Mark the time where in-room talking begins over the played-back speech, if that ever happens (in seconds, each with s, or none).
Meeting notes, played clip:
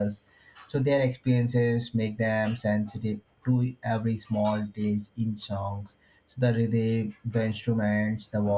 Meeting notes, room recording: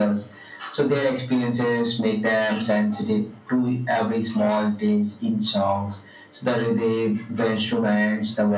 none